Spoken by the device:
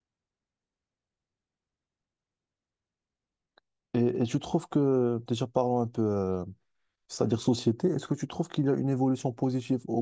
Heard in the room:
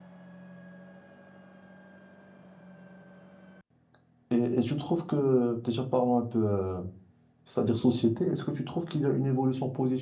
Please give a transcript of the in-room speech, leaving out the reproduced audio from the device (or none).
none